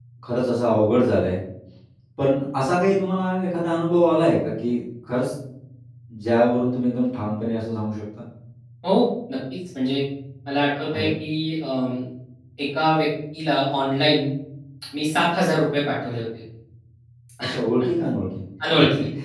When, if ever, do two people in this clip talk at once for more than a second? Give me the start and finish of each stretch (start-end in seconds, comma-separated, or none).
none